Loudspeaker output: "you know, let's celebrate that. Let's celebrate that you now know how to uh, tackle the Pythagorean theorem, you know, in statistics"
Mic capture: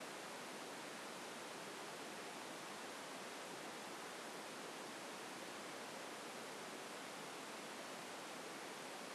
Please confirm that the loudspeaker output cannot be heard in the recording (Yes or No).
Yes